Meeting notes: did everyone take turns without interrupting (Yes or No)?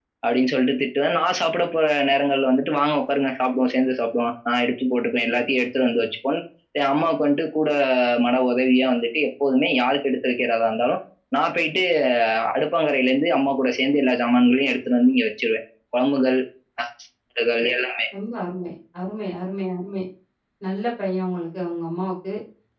Yes